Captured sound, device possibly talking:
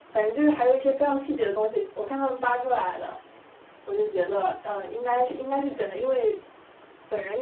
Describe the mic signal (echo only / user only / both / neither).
echo only